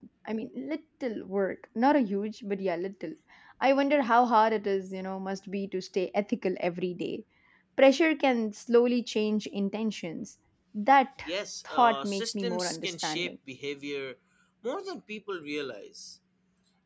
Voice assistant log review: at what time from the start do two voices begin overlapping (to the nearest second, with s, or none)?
12 s